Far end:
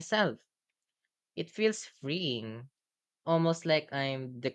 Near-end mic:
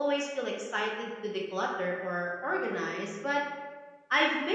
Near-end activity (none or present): present